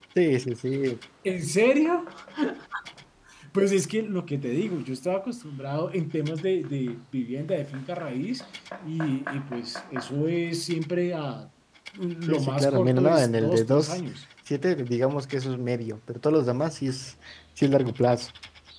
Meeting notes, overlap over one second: present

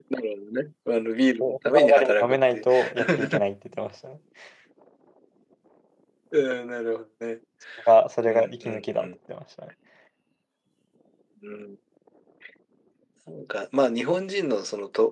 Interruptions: present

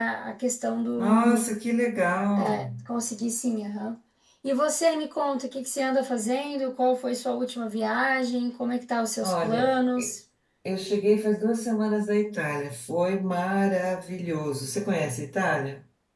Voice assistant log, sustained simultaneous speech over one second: none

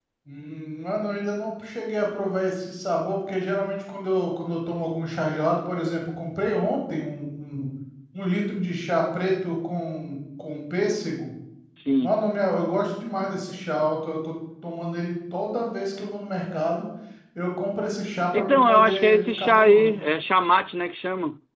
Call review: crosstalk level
present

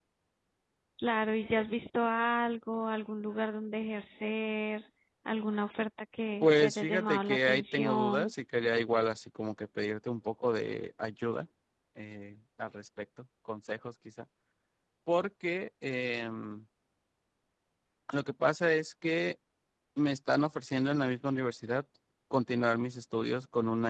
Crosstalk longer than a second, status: present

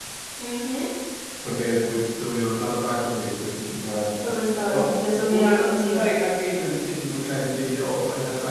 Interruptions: present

